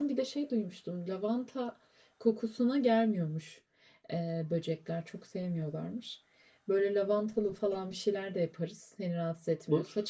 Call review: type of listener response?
listening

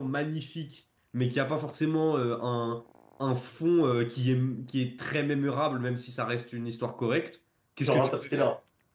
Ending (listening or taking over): listening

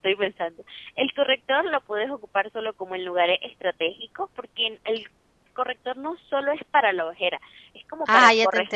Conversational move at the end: taking over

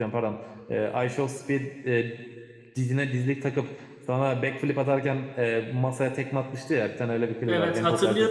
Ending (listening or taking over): taking over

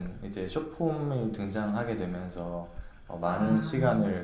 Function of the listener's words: listening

